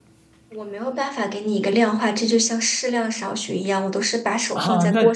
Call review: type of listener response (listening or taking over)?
taking over